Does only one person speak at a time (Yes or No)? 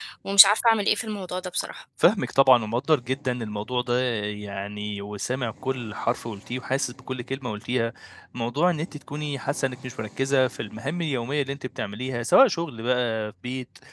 Yes